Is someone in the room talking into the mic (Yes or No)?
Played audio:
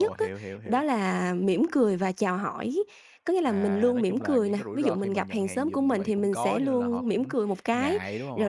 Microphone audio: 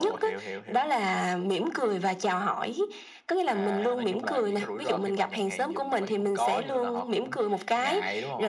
No